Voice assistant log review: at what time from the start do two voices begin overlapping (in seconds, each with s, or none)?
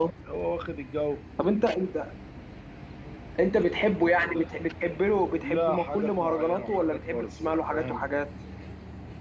5.4 s